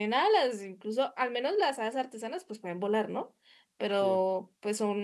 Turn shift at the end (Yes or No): No